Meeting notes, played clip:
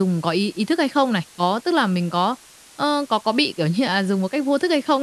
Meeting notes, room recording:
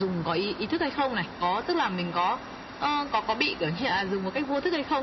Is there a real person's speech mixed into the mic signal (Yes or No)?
No